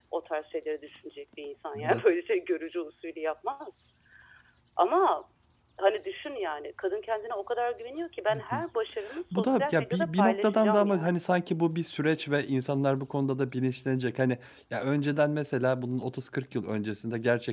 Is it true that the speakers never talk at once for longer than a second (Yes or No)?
No